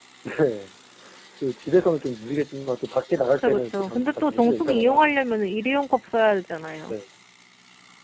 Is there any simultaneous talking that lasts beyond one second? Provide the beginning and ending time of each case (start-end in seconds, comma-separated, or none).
3.4-5.1